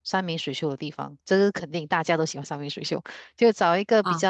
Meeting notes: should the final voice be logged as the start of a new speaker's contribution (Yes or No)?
No